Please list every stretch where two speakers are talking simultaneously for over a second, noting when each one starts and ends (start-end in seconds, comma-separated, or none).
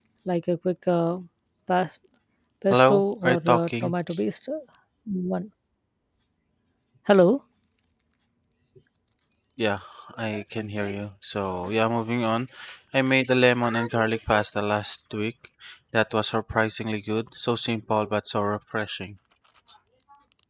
2.7-3.9